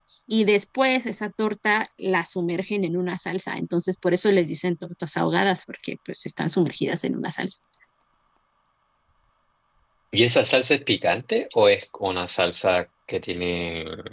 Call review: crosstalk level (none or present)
none